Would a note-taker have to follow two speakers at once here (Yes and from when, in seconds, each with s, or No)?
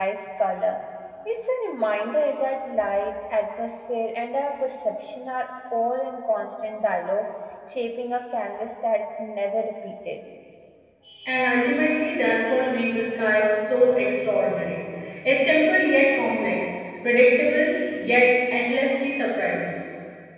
No